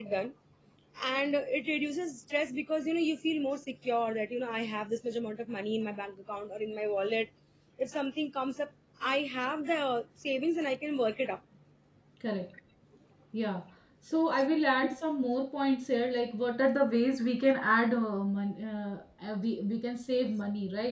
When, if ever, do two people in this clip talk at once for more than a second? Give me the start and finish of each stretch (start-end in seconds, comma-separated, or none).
none